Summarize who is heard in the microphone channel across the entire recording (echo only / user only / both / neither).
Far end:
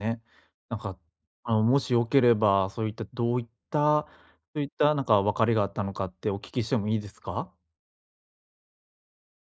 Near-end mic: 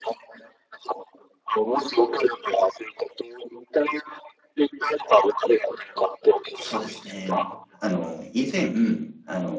both